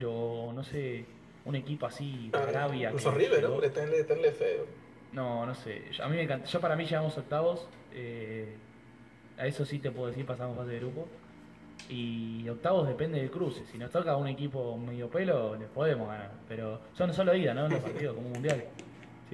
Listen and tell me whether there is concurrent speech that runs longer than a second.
Yes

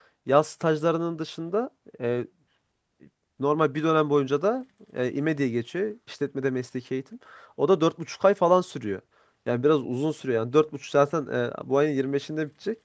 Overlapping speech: No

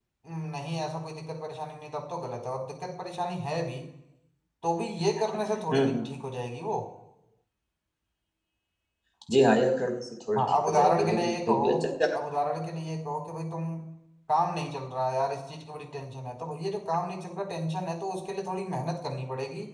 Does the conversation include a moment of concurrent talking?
Yes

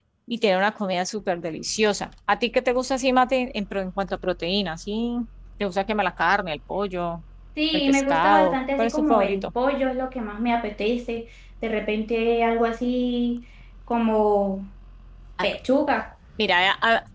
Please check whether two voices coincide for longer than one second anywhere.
Yes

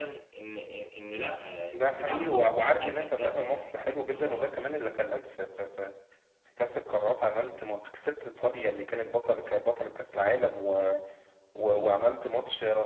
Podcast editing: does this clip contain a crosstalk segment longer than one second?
Yes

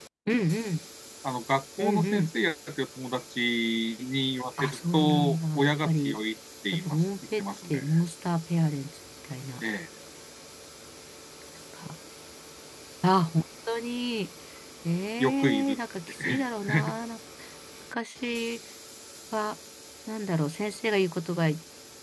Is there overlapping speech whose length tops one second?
Yes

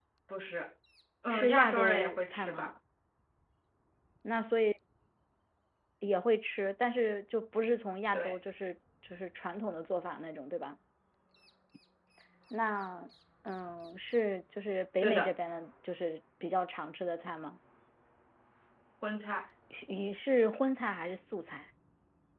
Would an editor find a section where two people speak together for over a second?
Yes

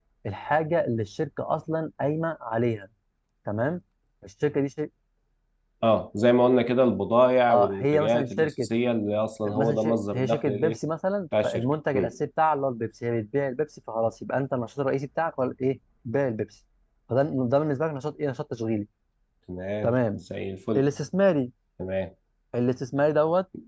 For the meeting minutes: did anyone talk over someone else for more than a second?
Yes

